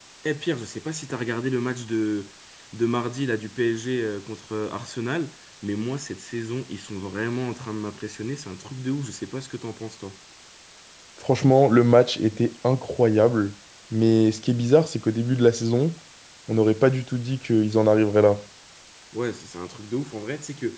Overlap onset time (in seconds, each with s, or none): none